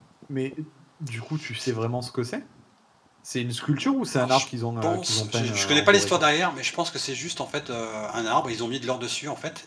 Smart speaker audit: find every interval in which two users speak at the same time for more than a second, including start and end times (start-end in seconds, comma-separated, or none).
4.8-6.3